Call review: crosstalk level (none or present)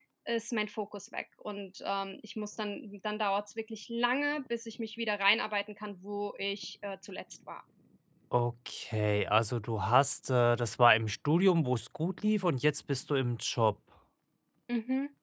none